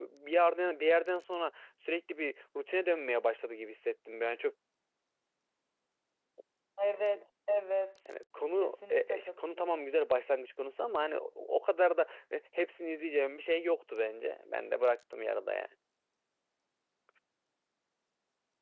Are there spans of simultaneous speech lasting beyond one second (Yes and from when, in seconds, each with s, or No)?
Yes, from 8.5 s